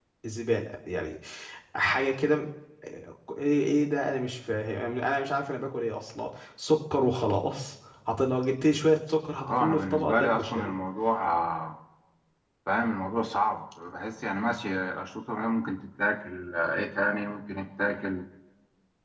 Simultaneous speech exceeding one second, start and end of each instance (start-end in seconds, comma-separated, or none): 9.4-10.7